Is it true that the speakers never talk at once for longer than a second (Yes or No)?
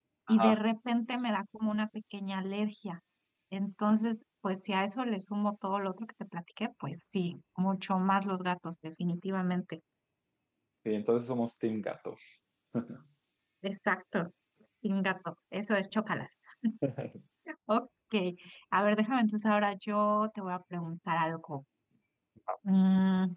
Yes